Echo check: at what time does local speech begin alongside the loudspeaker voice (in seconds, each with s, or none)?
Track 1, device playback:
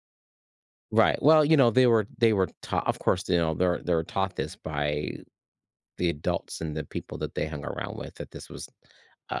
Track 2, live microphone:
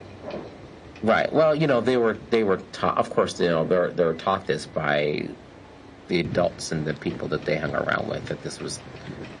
none